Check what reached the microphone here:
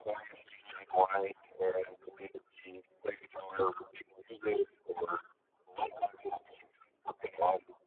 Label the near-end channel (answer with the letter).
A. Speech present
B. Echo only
B